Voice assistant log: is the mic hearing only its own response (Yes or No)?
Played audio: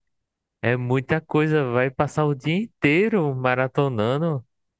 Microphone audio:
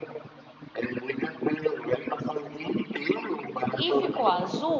No